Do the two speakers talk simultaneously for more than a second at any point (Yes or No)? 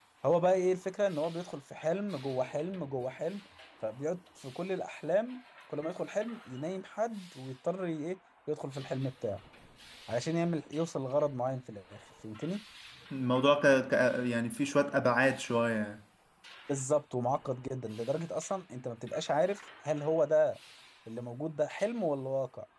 No